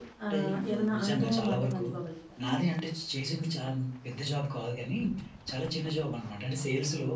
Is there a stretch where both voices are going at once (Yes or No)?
Yes